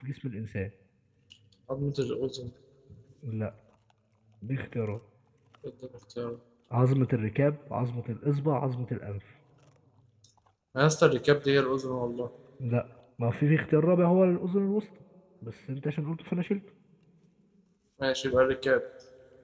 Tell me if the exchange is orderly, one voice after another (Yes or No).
Yes